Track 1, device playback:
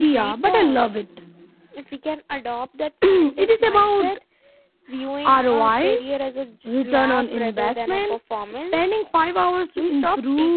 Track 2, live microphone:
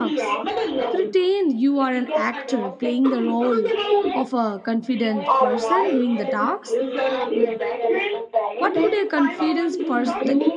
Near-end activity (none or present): present